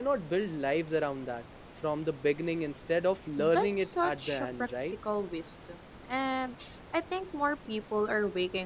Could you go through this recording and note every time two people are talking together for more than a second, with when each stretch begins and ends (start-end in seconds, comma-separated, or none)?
3.4-4.7